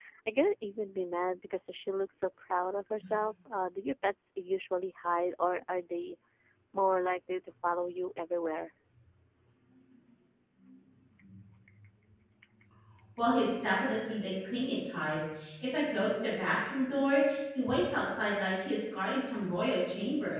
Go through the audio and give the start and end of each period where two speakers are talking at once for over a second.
none

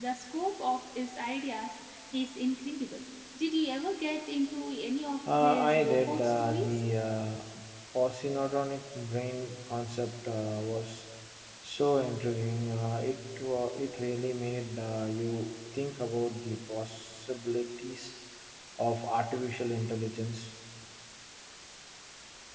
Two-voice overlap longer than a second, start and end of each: 5.4-6.8

